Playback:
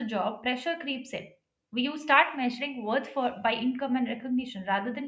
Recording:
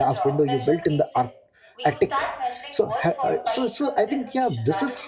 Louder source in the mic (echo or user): user